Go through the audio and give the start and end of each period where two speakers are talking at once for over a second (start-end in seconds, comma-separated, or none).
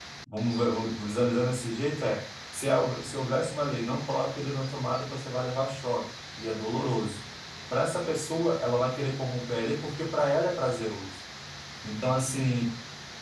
none